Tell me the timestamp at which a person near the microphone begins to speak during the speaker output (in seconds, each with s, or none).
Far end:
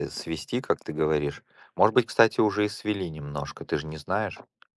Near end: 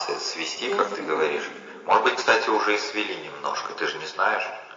0.5 s